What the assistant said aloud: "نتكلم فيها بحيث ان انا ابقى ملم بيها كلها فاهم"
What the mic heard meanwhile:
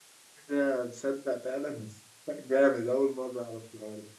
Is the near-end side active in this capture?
Yes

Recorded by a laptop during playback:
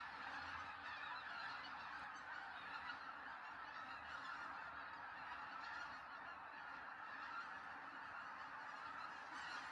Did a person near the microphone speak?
No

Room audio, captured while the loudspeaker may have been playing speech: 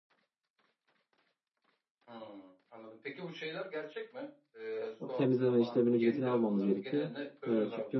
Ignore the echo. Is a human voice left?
Yes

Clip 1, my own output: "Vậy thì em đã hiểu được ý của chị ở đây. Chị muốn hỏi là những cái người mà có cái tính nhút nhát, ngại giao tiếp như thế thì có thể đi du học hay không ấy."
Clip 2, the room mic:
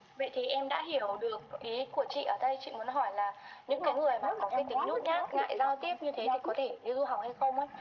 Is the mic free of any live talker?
No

